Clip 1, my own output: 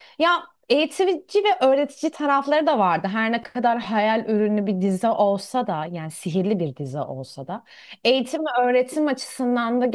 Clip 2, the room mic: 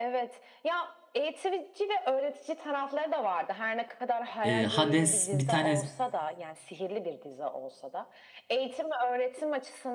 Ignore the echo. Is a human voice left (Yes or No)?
Yes